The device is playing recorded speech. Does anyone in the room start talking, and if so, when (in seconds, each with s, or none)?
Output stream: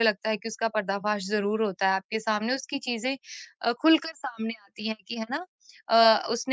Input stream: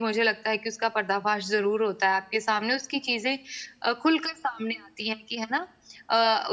none